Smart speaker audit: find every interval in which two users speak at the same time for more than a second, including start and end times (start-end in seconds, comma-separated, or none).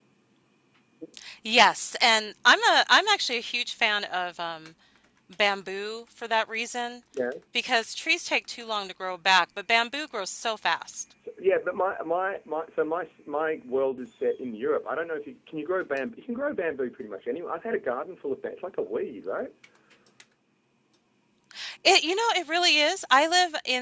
none